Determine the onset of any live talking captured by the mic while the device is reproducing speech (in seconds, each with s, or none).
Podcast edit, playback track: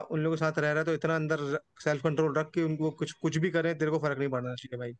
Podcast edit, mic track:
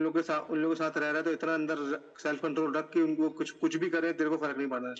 none